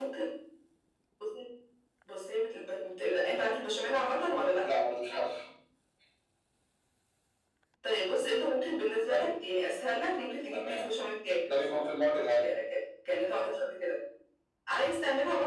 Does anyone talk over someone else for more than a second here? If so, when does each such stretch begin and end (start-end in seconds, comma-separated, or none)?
none